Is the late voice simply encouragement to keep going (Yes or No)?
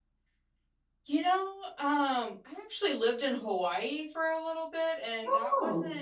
Yes